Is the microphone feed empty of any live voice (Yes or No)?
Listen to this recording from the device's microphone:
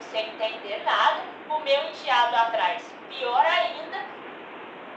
Yes